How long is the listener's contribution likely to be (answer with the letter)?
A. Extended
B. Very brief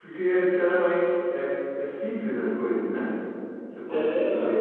B